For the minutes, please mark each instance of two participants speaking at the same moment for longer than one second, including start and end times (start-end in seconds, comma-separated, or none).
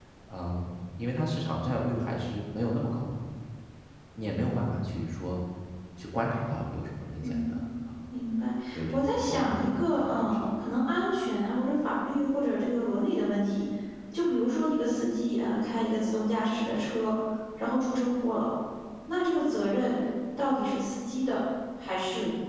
8.9-10.3